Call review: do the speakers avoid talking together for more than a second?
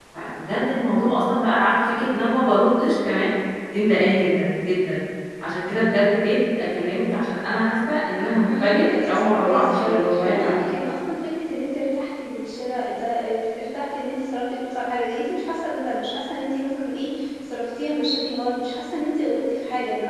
No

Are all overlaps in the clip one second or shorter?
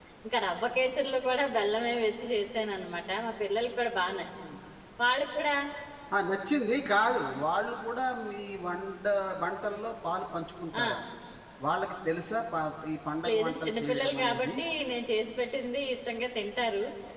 No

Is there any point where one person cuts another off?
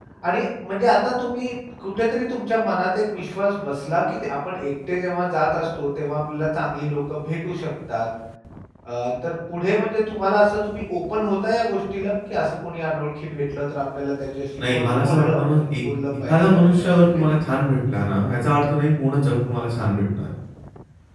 Yes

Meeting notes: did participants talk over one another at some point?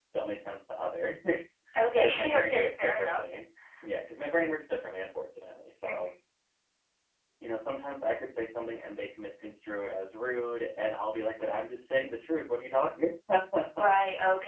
Yes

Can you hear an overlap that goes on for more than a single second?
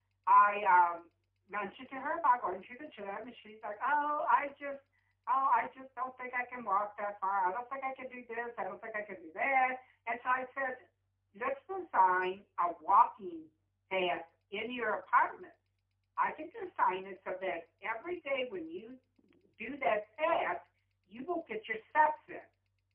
No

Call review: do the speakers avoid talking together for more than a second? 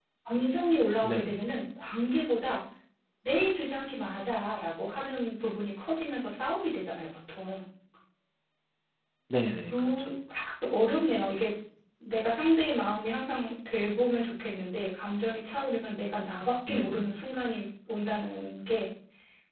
Yes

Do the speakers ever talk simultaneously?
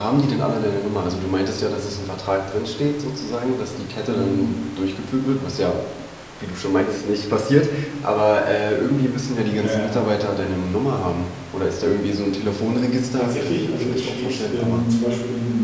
Yes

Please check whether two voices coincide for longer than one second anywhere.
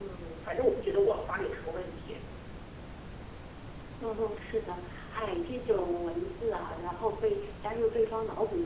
No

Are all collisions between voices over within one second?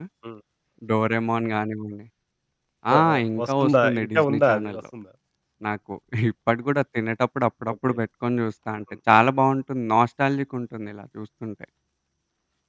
No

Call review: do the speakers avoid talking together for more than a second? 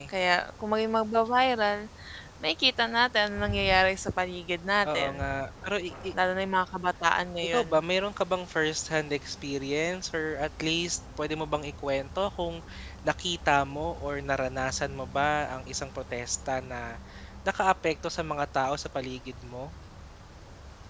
Yes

